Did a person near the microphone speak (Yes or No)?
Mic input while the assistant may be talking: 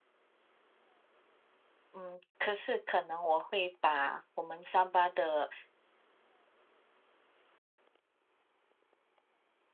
Yes